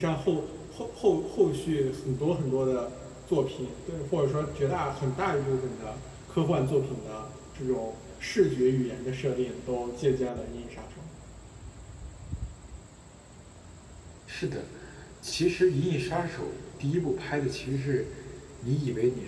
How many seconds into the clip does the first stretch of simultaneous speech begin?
none

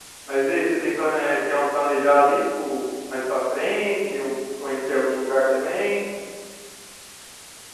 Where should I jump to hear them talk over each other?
none

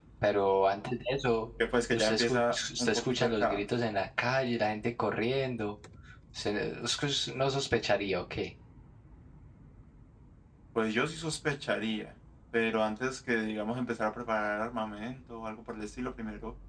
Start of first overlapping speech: 2 s

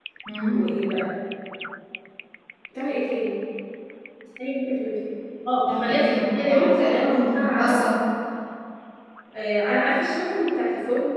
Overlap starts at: 6 s

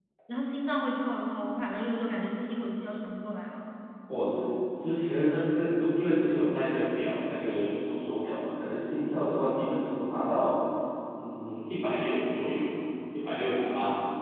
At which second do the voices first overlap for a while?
none

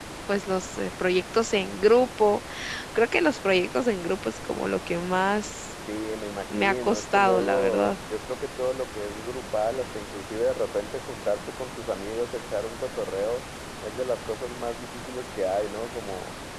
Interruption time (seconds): 7 s

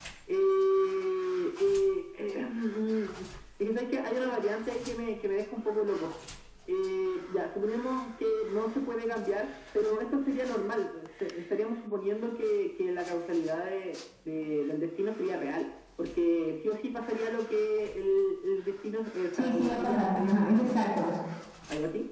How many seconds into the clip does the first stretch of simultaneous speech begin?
19 s

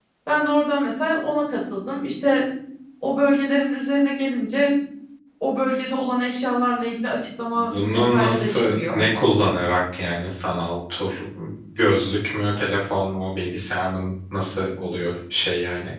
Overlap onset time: 8 s

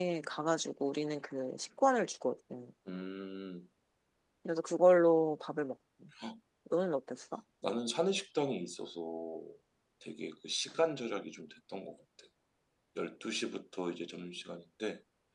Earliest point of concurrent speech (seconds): none

